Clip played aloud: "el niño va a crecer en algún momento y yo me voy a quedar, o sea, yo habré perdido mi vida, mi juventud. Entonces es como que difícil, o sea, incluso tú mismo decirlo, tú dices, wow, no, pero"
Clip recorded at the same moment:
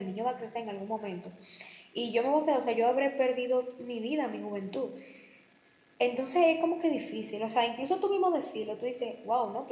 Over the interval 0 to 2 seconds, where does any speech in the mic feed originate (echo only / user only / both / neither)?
echo only